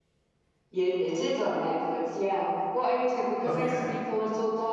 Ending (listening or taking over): listening